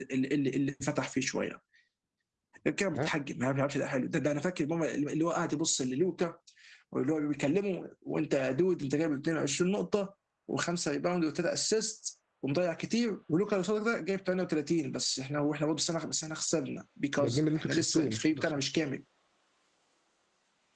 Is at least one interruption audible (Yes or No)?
Yes